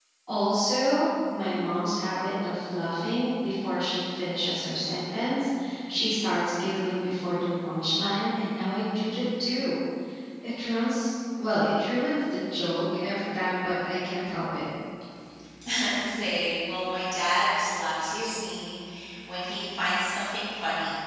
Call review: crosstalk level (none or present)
none